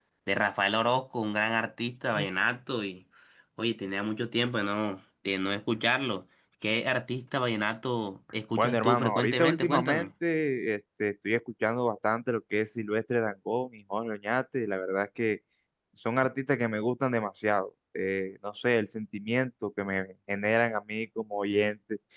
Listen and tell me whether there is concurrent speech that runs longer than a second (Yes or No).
Yes